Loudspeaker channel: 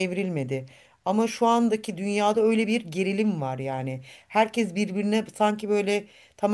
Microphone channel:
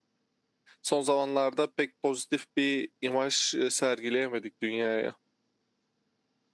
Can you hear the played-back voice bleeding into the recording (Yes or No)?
No